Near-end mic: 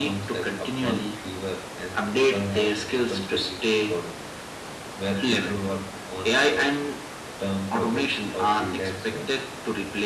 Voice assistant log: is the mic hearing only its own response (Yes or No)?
Yes